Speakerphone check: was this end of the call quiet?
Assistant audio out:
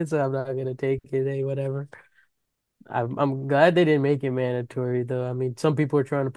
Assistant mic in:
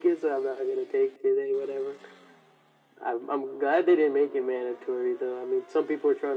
Yes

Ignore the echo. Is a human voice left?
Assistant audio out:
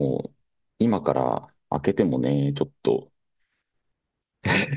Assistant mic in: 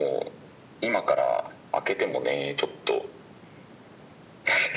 No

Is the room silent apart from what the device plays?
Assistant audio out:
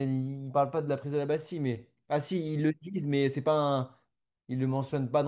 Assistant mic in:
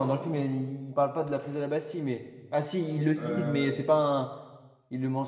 No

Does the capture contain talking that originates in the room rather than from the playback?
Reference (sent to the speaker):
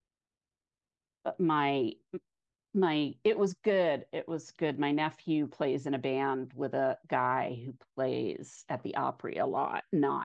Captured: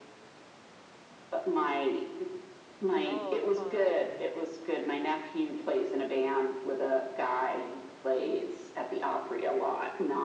Yes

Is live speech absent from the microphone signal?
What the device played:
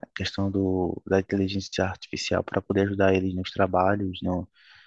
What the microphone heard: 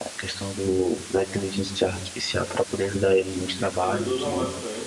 No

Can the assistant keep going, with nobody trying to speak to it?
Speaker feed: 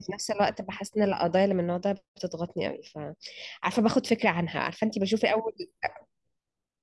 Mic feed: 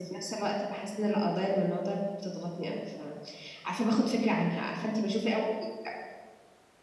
Yes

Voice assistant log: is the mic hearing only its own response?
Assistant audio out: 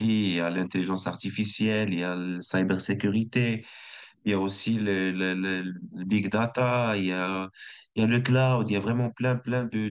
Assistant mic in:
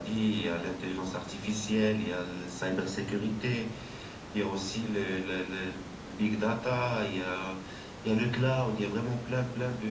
Yes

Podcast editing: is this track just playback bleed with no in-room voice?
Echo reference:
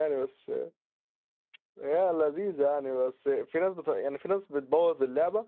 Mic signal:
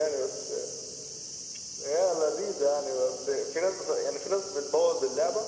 Yes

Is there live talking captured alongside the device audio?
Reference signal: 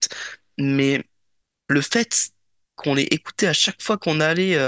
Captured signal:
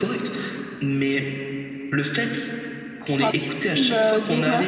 Yes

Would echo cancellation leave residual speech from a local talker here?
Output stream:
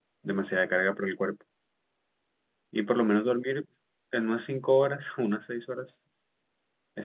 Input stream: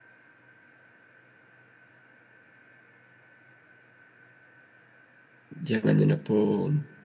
Yes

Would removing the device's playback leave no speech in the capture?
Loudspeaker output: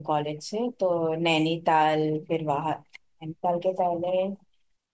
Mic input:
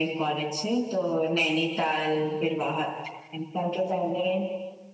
Yes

